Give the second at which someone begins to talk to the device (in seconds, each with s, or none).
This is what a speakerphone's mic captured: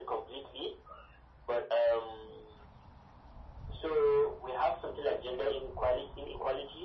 none